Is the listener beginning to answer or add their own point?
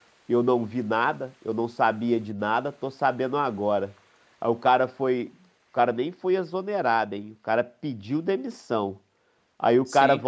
No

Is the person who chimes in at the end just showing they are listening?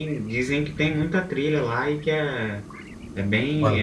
No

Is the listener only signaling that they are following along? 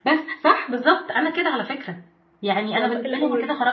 Yes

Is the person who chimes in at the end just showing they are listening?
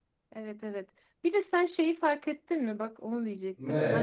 Yes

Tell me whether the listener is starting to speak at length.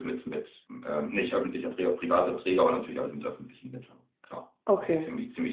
No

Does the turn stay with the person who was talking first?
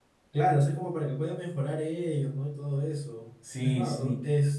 Yes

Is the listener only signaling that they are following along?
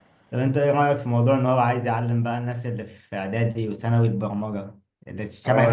No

